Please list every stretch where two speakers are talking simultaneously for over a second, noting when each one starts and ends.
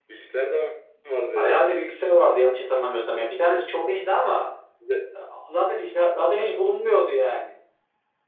none

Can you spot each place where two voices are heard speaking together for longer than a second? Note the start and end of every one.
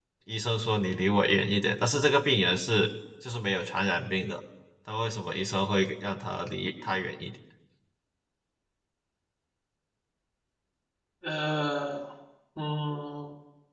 none

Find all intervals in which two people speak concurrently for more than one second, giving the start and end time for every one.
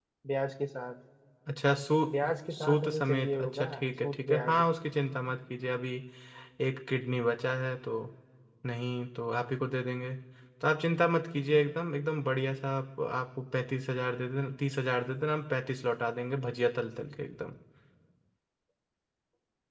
2.5-4.6

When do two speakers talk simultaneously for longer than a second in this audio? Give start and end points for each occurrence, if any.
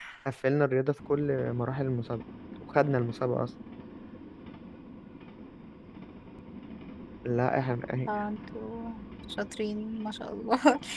none

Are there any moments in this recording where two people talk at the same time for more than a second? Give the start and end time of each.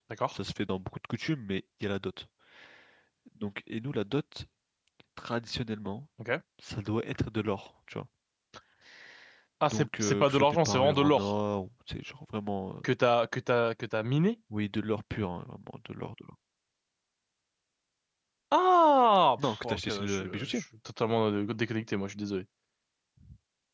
9.7-11.3, 19.4-20.6

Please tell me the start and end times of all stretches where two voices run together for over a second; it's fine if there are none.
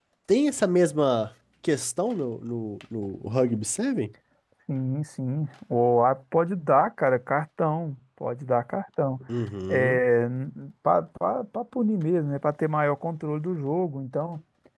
none

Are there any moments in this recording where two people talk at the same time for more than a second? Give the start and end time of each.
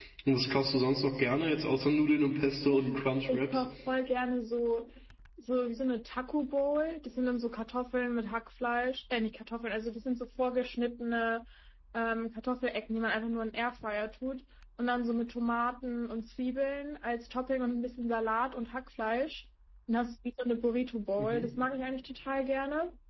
none

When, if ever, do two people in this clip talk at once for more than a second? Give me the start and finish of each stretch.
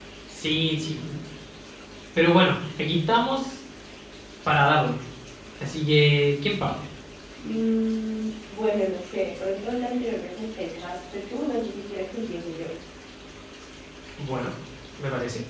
none

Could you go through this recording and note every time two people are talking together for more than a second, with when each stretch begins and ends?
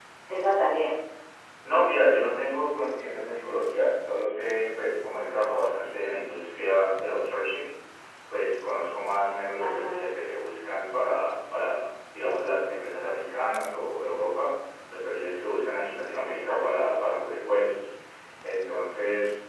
none

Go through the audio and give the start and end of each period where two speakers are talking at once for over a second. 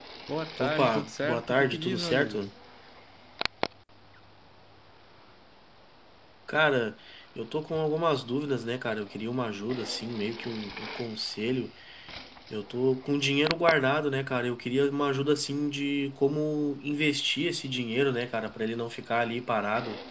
0.6-2.4

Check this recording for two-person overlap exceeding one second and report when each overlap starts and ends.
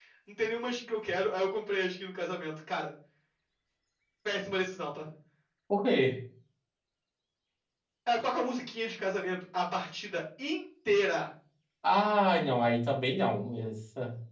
none

